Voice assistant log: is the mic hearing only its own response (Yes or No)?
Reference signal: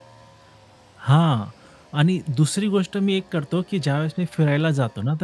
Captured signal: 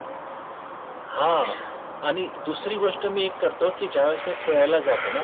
Yes